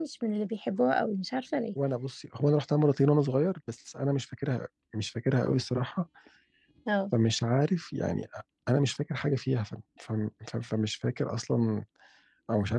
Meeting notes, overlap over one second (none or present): none